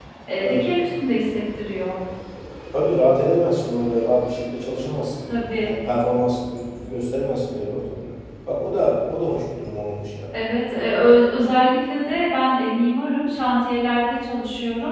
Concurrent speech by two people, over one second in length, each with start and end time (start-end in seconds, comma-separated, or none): none